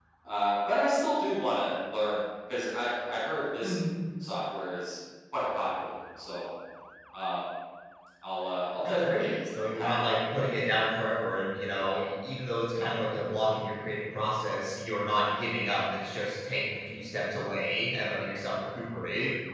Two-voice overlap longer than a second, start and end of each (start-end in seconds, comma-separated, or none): 8.9-10.5